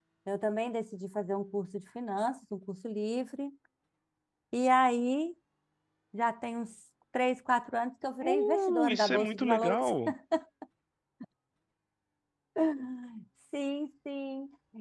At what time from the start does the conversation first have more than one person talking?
8 s

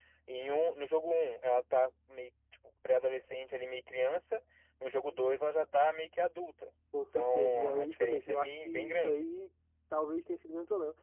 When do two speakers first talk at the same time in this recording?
7 s

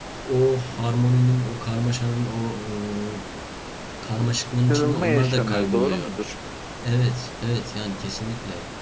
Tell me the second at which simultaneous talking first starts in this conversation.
5 s

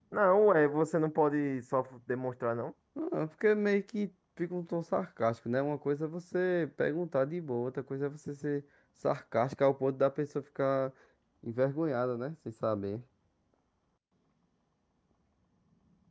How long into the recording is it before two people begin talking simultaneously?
none

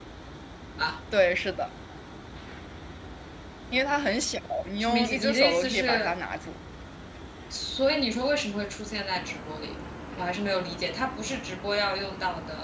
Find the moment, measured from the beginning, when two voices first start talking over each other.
5 s

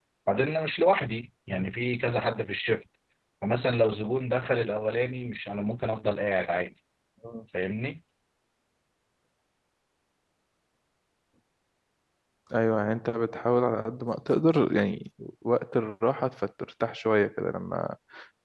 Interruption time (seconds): none

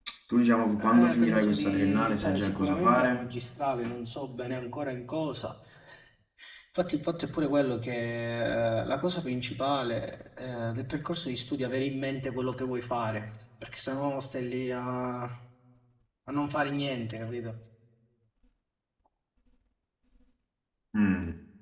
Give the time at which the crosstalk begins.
1 s

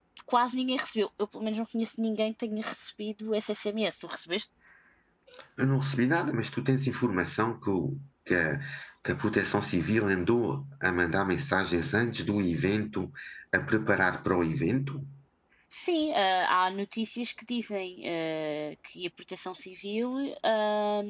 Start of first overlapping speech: none

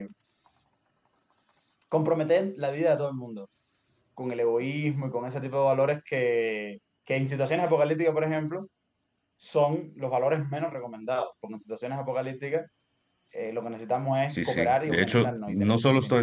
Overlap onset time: 14 s

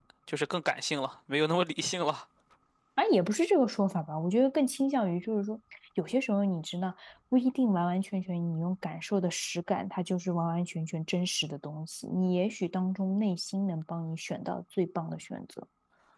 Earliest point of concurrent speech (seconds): none

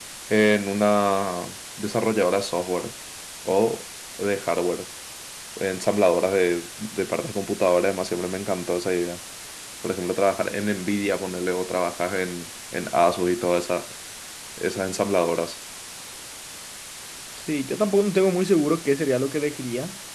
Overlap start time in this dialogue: none

